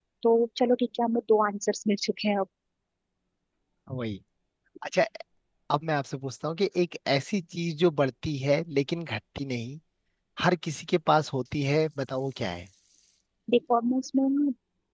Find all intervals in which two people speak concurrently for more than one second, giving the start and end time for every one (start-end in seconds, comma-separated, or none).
none